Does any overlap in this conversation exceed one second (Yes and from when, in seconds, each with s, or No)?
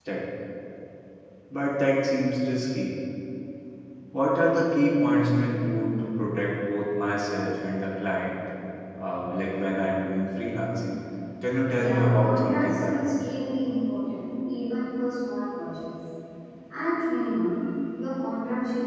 Yes, from 11.6 s